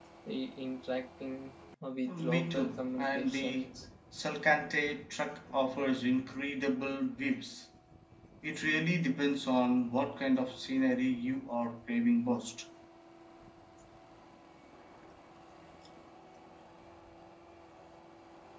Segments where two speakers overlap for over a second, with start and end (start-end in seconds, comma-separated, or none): 2.2-3.7